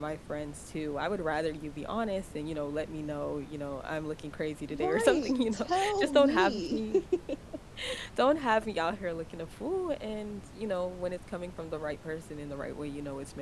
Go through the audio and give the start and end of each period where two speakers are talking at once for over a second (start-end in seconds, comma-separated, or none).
4.7-6.8